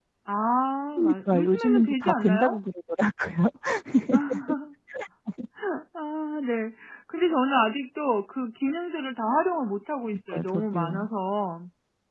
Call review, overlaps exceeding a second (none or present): present